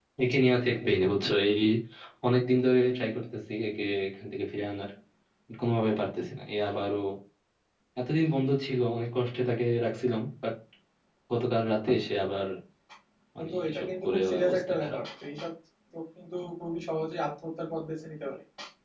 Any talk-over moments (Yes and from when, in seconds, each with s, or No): Yes, from 13.4 s